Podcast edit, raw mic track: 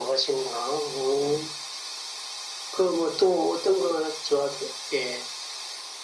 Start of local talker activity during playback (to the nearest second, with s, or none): none